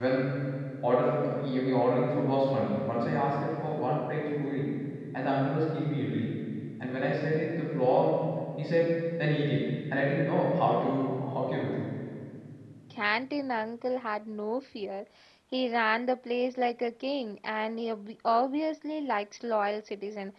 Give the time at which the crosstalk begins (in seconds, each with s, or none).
none